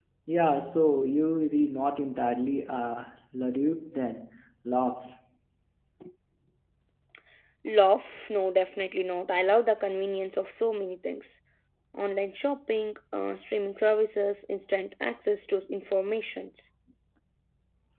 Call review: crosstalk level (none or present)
none